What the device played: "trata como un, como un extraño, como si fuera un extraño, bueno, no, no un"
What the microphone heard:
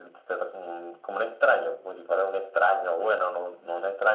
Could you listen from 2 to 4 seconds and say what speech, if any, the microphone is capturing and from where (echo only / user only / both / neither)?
echo only